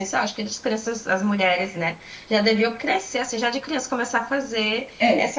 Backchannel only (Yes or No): No